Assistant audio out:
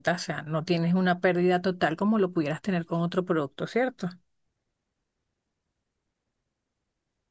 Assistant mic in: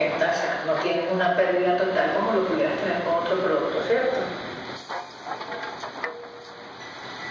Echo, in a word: present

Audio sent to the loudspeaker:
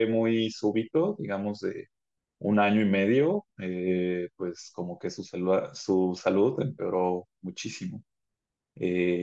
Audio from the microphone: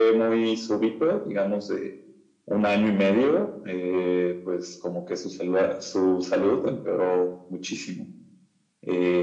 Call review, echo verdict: present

